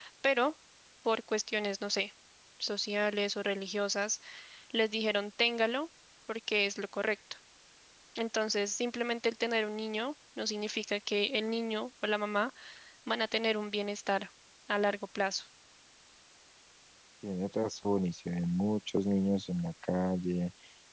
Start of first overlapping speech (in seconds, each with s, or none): none